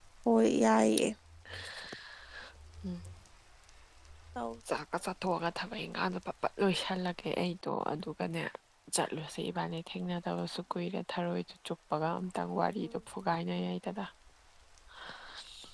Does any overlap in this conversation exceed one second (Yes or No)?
No